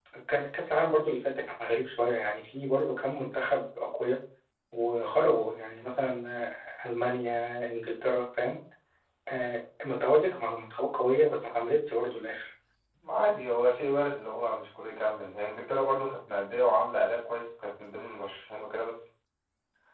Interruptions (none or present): none